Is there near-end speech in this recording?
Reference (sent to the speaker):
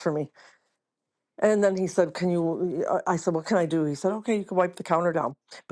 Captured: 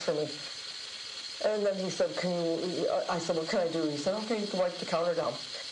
No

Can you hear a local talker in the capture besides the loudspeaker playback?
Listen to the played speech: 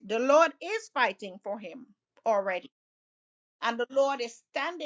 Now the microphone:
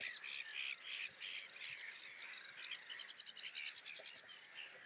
No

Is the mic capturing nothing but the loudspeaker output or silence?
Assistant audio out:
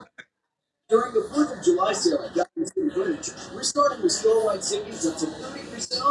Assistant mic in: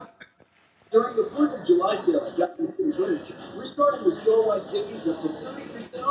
Yes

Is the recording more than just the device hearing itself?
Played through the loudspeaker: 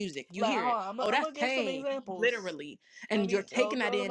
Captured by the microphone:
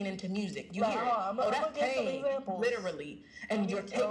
No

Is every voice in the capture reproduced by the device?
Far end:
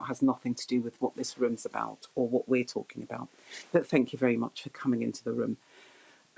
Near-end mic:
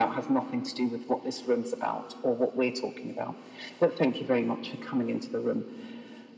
Yes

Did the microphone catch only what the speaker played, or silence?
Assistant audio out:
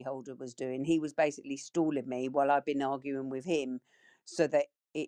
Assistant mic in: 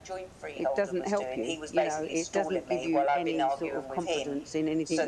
No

